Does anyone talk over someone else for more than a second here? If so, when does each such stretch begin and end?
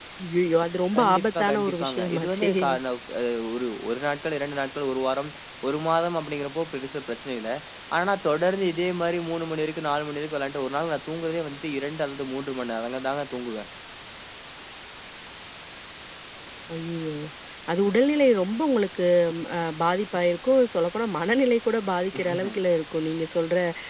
1.0-2.5

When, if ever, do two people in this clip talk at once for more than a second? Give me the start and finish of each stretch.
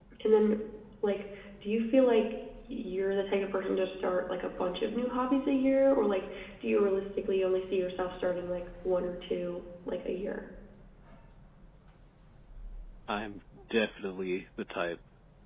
none

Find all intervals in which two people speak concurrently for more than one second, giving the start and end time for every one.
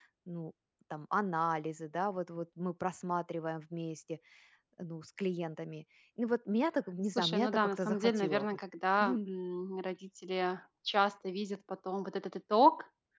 7.2-8.4

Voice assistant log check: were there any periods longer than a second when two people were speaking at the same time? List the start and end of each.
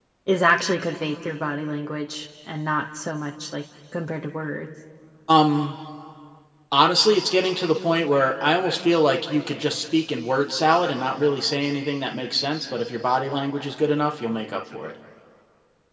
none

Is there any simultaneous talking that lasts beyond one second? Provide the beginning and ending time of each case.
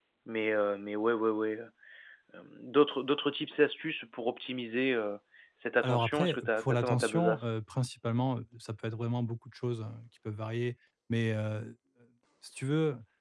5.8-7.5

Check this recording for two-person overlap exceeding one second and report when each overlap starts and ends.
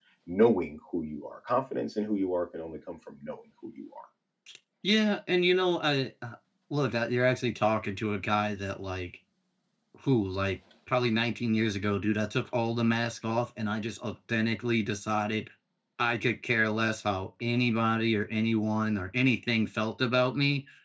none

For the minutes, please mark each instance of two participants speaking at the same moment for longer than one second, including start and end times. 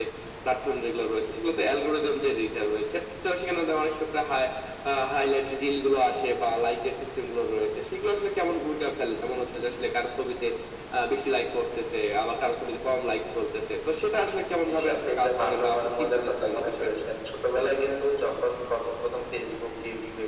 14.7-16.9

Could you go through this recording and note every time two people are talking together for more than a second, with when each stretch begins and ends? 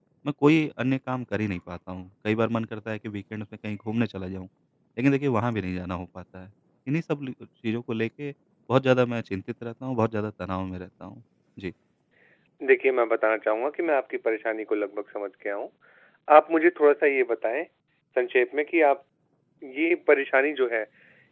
none

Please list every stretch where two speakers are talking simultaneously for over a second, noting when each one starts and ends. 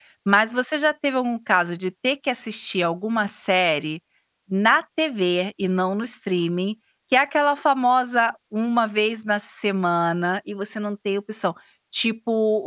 none

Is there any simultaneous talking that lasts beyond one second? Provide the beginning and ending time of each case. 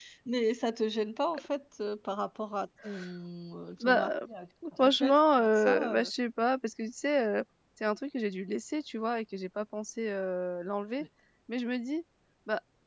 4.8-6.1

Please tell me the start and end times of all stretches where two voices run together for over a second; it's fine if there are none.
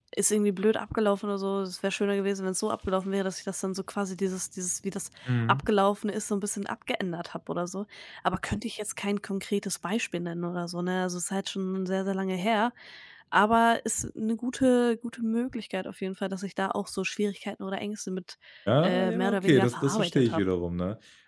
18.8-20.4

